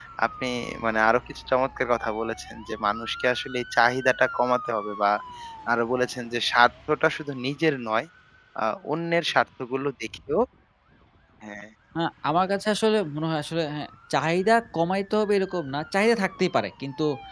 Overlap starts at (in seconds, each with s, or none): none